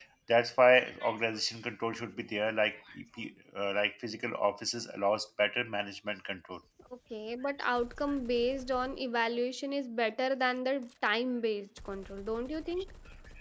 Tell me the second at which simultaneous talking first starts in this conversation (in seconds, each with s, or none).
none